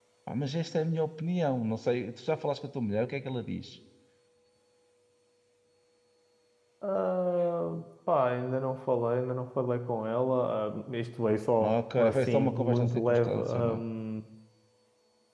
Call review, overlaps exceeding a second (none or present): present